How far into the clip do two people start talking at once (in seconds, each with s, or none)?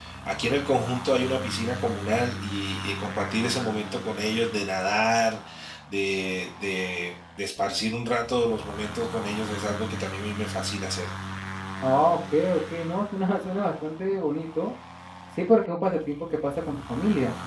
none